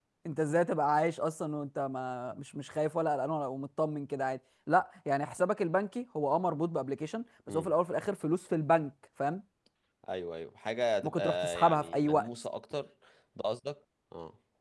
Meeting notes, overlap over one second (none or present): present